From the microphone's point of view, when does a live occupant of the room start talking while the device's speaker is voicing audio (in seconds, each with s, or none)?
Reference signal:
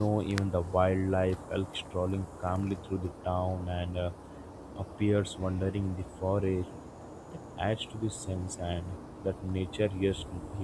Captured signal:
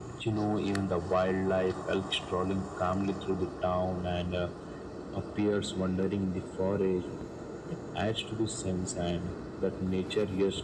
none